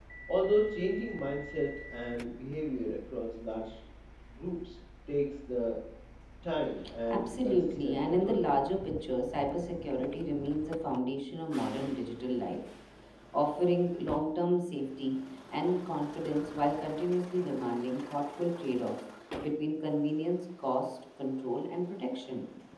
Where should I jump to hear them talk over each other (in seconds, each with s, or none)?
7.1 s